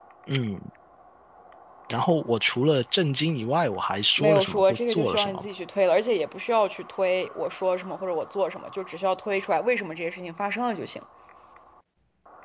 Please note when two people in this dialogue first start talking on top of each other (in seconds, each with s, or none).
4.2 s